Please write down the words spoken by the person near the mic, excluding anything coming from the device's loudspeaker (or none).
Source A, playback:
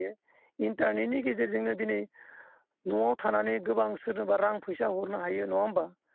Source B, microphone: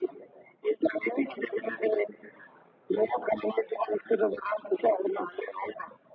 none